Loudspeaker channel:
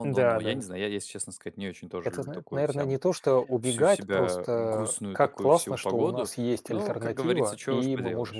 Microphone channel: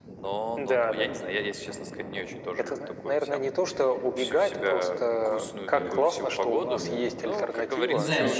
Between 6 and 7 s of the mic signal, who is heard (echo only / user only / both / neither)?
both